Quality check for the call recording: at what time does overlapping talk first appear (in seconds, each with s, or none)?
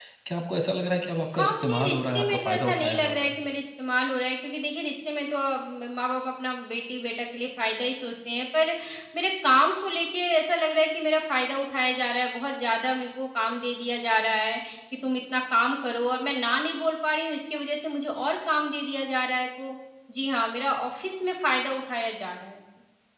1.3 s